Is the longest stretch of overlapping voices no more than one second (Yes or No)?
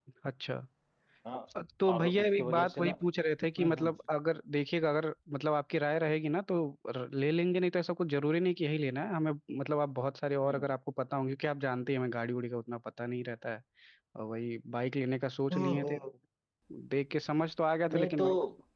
No